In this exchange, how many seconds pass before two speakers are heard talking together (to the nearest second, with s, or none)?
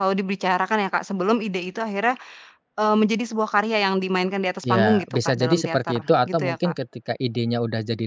5 s